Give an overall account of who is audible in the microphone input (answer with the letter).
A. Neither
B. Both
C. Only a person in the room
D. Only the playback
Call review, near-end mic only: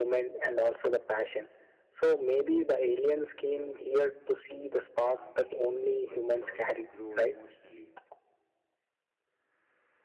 B